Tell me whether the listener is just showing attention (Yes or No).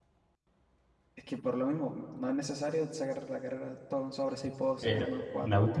No